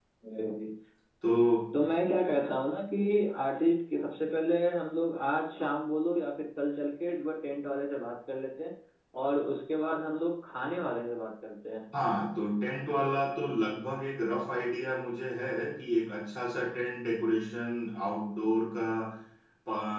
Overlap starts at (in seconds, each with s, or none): none